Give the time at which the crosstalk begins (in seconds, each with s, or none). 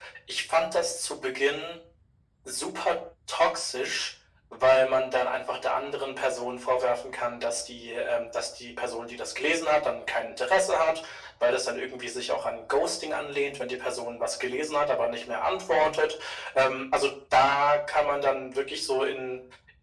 none